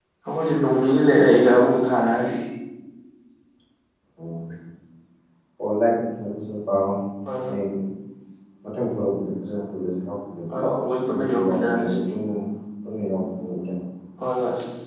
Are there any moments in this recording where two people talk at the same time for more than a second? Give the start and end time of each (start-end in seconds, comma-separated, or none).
10.5-11.9